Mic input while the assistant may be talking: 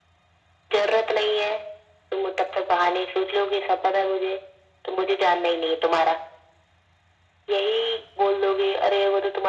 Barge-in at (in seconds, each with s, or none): none